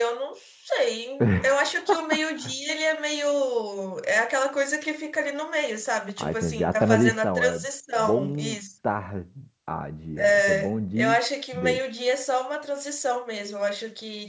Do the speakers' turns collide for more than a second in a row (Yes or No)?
Yes